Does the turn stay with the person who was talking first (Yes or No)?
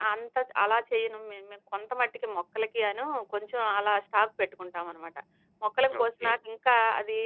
Yes